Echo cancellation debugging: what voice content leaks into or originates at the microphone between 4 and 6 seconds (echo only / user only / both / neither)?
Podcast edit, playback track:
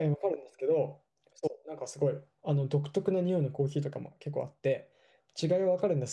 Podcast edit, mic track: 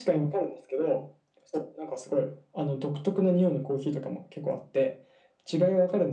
echo only